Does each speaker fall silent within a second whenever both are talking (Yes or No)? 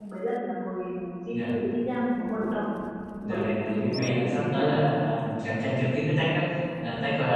No